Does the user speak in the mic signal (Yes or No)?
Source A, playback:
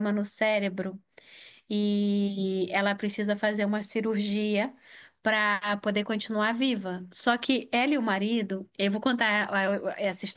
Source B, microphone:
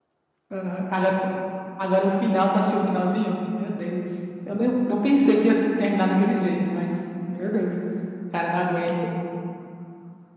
Yes